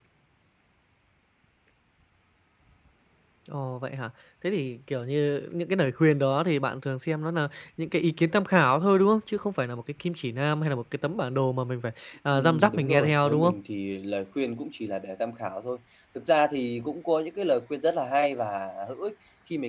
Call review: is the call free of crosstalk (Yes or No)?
No